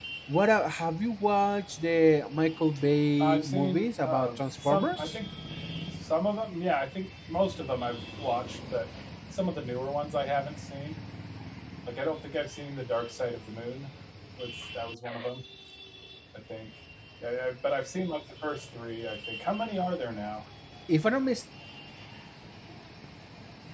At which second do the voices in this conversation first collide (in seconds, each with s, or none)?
3.2 s